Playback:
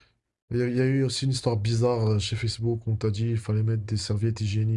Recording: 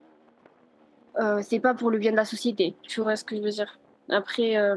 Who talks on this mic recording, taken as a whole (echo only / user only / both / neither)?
user only